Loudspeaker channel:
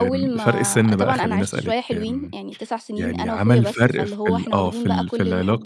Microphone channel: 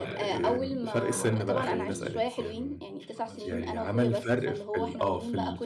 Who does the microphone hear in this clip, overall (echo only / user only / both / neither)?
both